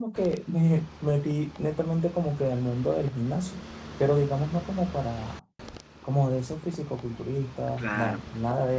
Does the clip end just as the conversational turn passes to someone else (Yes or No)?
No